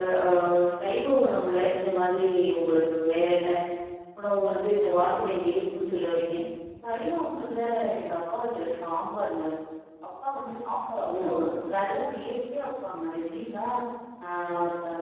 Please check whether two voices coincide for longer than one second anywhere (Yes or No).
No